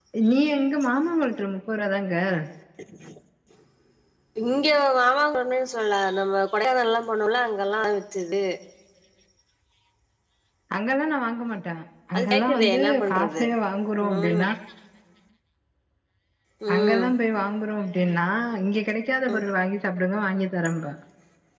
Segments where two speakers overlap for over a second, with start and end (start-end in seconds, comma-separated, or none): 12.2-13.4